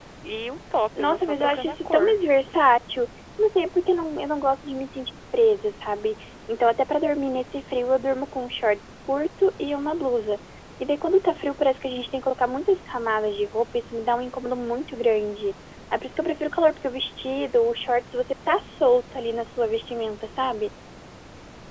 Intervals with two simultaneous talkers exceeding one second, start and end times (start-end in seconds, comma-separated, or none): 1.0-2.2